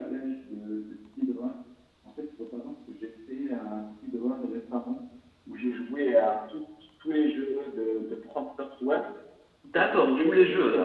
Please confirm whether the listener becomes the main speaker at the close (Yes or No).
Yes